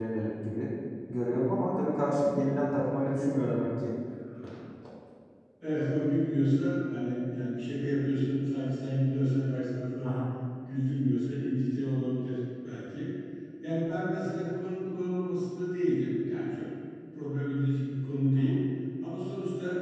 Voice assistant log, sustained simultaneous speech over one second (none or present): none